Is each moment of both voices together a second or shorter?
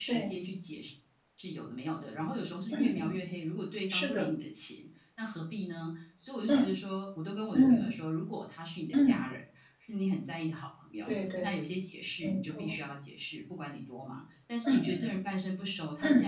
Yes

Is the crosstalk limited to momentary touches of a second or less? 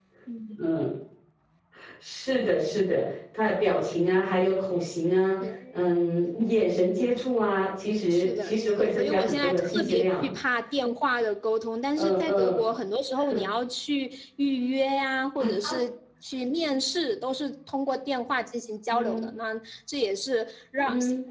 No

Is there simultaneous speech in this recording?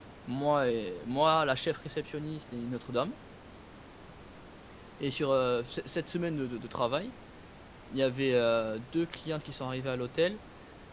No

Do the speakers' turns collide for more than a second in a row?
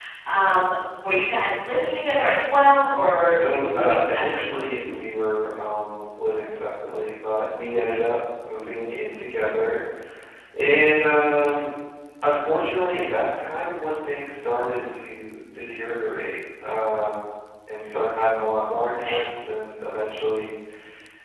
Yes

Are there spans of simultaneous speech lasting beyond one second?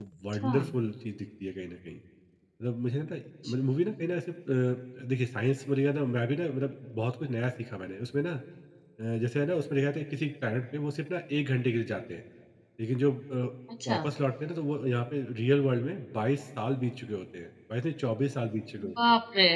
No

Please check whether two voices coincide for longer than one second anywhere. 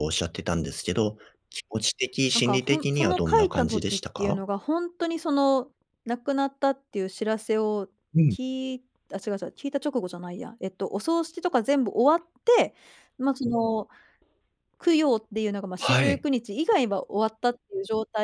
Yes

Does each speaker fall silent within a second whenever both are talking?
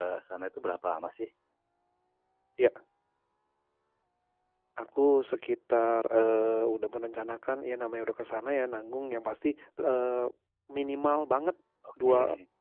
Yes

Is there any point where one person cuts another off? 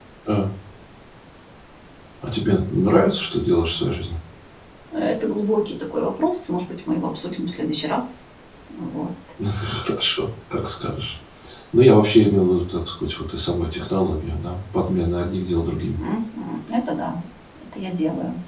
No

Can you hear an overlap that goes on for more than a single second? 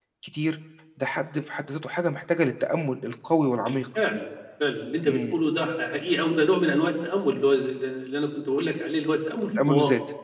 No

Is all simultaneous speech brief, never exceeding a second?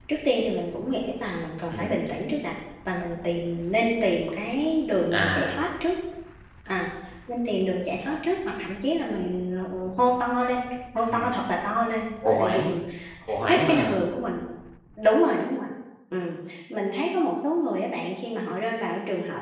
Yes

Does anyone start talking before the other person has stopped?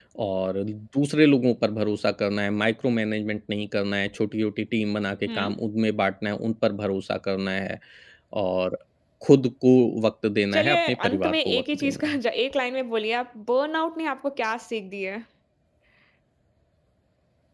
Yes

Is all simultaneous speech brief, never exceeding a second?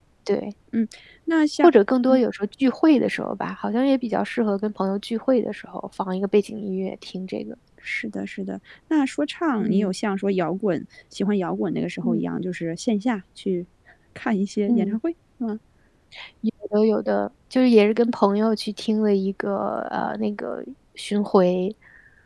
Yes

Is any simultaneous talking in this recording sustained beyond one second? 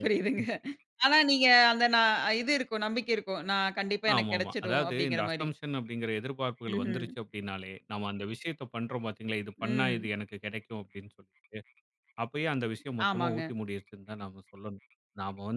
Yes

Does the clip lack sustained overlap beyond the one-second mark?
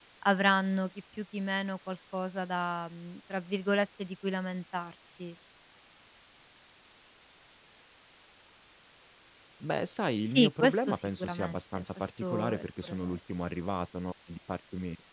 No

